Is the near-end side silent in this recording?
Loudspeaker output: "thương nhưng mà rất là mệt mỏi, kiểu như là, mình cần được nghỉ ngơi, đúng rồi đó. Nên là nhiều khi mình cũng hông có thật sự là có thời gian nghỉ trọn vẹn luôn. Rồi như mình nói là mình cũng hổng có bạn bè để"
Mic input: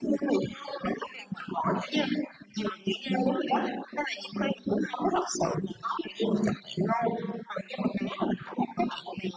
Yes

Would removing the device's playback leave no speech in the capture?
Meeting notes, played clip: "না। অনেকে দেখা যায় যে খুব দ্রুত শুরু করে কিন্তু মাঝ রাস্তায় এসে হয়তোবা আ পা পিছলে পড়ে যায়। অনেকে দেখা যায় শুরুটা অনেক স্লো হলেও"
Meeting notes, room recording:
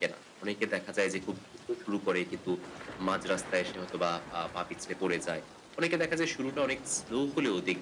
Yes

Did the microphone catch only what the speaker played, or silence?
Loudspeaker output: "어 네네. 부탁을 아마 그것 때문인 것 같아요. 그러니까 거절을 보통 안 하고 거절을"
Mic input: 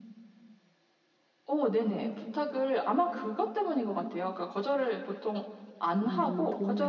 No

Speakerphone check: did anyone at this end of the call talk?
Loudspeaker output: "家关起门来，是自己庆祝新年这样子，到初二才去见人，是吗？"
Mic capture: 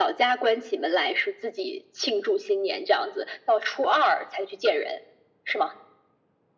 No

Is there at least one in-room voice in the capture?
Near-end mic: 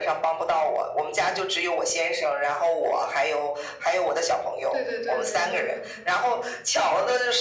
Yes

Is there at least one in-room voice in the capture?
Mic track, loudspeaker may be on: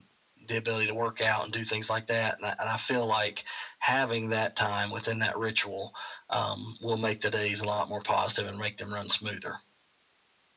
No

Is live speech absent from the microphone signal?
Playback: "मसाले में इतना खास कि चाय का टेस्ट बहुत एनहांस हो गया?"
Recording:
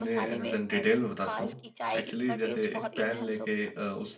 No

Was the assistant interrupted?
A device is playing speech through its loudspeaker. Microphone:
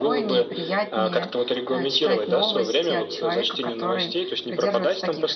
Yes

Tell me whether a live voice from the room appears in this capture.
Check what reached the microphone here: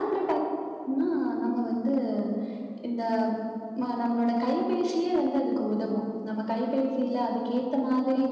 No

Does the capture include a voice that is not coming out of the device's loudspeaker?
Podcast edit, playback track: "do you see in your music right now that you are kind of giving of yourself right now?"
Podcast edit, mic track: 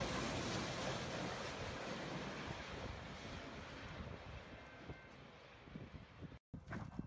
No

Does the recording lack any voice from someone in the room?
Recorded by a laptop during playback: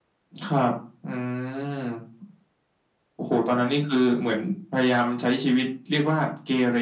Yes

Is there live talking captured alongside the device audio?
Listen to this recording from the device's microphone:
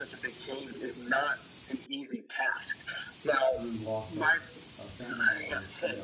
Yes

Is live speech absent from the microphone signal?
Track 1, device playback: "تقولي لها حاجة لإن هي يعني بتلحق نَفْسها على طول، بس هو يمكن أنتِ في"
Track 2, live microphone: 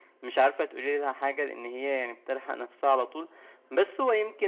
Yes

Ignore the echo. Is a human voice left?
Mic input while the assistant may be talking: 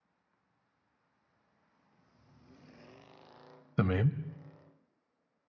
Yes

